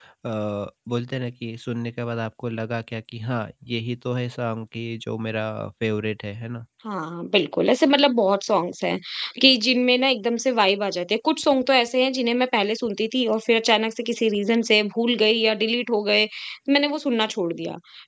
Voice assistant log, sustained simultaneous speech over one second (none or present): none